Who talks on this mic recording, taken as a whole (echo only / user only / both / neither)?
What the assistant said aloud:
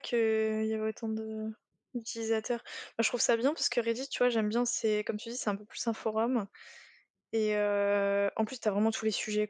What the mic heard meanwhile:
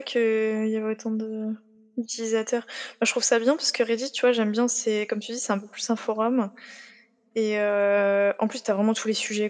echo only